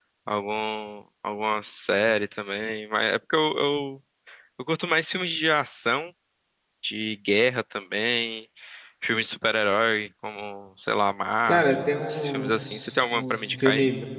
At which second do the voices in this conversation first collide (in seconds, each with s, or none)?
11.5 s